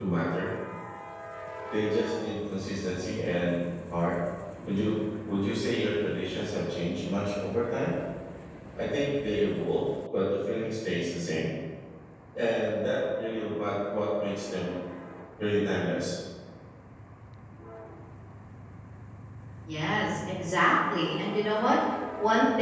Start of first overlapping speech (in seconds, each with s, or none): none